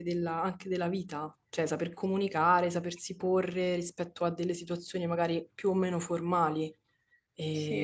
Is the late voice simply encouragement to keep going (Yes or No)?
Yes